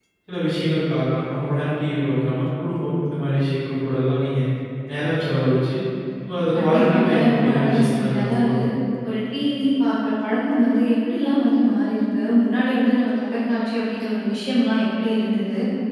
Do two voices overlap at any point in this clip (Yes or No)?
Yes